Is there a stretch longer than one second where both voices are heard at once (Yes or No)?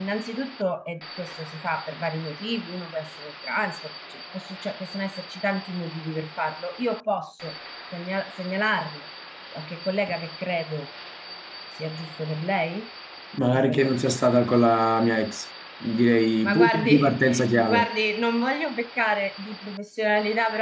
Yes